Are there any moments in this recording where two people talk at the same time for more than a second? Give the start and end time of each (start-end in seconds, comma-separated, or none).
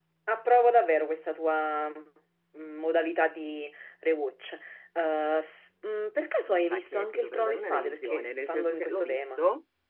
6.5-9.4